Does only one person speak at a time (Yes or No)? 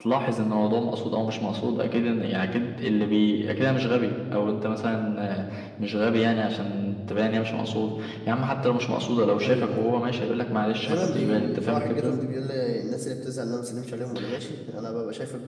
No